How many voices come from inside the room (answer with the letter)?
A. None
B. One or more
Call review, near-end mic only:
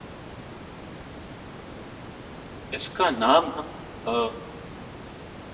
B